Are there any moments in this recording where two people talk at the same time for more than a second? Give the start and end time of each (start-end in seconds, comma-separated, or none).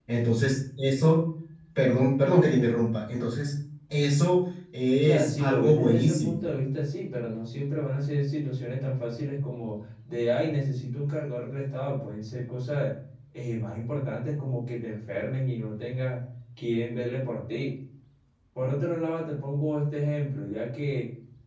5.0-6.4